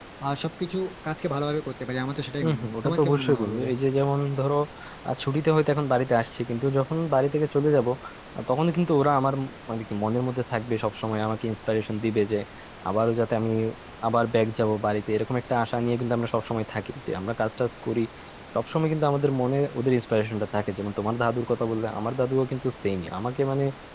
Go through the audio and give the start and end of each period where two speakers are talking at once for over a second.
2.4-3.7

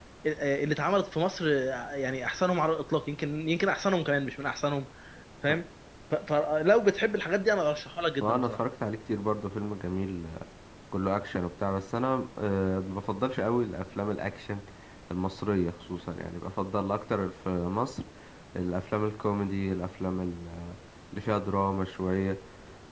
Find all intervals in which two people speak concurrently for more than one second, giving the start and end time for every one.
none

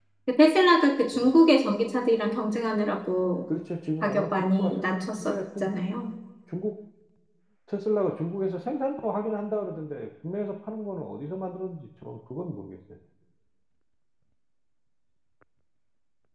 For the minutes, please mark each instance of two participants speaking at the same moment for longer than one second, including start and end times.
4.0-5.7

